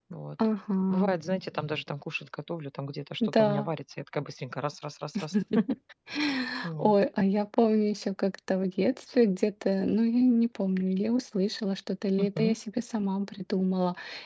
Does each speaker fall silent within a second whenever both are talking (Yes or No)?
Yes